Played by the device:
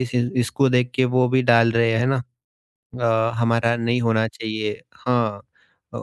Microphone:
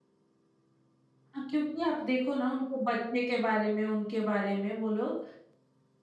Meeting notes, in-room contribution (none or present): present